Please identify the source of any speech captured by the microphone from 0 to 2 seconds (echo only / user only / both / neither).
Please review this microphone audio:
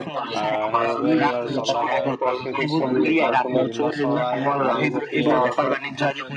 both